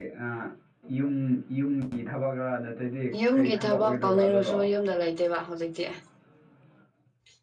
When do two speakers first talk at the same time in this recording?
3.1 s

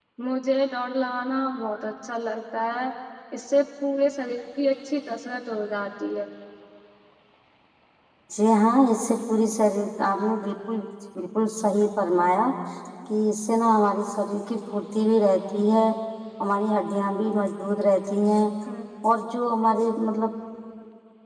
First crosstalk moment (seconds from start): none

